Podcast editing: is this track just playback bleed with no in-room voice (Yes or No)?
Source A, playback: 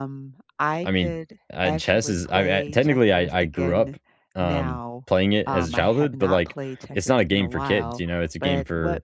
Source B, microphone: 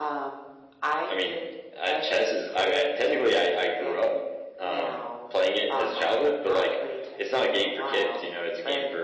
Yes